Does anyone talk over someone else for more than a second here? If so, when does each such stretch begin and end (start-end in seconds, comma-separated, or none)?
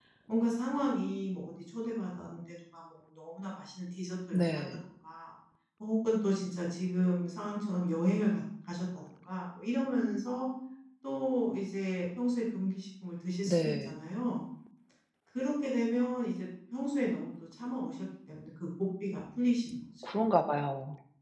none